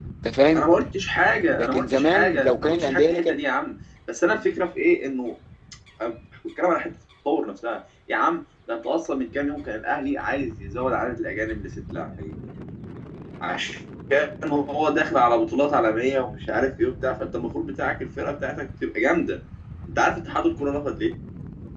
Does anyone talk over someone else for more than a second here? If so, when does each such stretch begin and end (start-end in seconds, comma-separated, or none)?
1.6-3.4